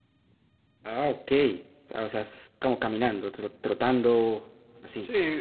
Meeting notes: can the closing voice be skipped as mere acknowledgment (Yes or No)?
No